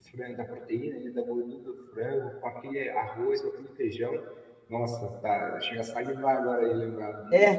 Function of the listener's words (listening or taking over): taking over